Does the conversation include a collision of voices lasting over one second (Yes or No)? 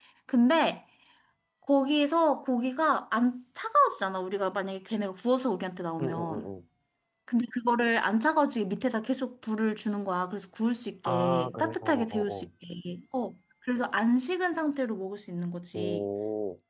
Yes